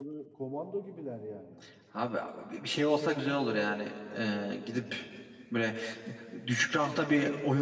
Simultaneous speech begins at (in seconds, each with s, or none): none